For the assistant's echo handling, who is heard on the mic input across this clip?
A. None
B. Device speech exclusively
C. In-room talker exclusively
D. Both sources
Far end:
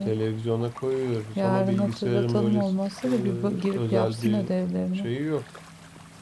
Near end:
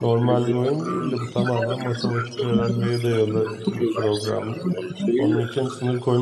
D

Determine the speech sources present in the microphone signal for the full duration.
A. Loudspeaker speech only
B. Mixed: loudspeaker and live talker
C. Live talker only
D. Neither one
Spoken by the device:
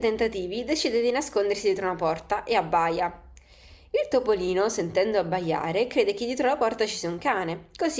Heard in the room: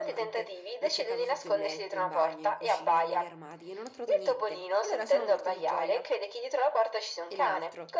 B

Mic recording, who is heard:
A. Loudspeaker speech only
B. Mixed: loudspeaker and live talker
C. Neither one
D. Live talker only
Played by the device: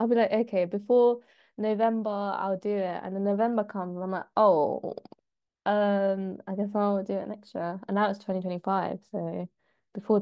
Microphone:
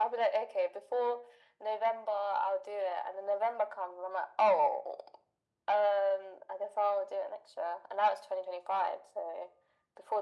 A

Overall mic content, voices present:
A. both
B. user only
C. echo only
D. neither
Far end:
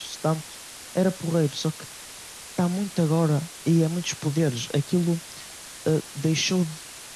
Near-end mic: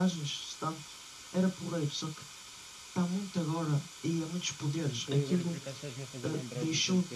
A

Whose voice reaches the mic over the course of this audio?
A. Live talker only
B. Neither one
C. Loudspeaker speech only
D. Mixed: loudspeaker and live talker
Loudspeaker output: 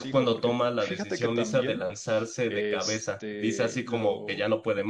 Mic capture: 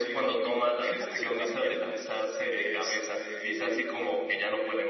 C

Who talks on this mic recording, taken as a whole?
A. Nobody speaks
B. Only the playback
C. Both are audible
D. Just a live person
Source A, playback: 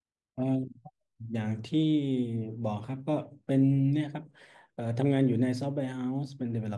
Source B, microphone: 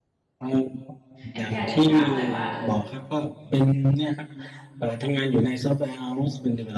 C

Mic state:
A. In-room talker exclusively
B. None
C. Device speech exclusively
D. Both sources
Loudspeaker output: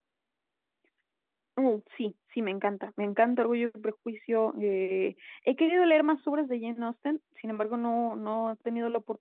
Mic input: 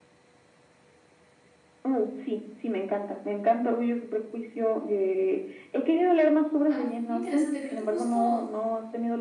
D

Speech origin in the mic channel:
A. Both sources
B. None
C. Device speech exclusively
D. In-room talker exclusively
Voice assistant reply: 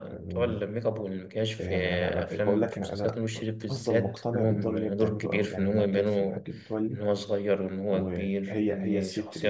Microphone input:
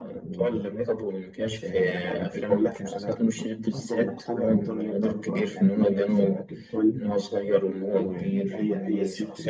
C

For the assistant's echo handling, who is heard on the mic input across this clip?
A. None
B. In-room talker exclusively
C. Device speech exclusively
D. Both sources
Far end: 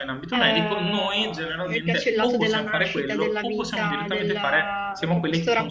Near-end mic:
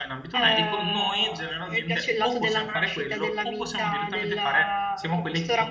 C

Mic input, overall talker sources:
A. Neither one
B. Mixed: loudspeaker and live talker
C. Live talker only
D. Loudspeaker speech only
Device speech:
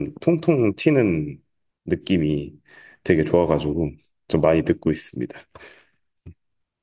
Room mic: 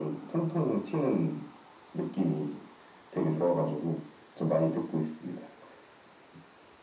D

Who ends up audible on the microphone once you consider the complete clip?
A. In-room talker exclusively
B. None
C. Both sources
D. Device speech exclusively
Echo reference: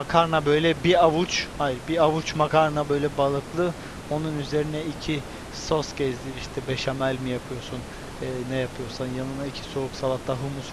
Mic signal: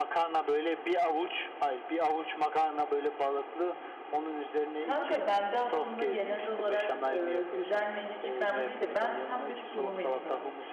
C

